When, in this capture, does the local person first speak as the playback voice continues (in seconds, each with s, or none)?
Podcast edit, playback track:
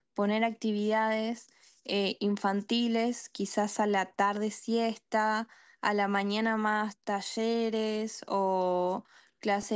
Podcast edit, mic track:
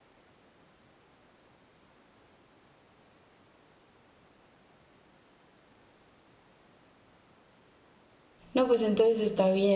8.5 s